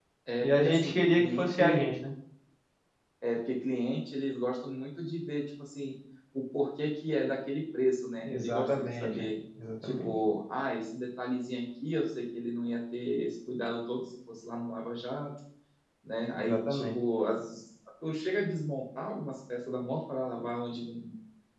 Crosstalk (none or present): present